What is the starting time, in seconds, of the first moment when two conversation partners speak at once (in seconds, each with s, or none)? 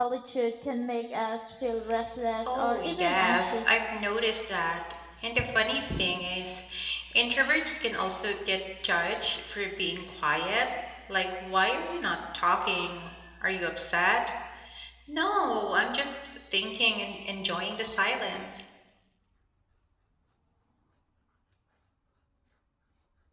2.5 s